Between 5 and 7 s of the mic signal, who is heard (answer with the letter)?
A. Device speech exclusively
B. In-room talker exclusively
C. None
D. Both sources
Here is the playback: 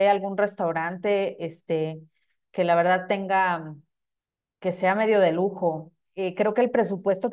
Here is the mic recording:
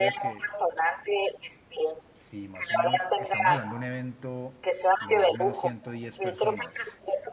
D